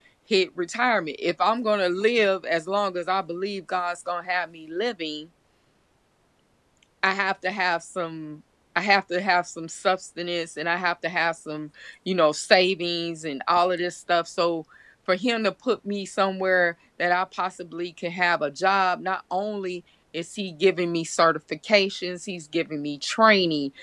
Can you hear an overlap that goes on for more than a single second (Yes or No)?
No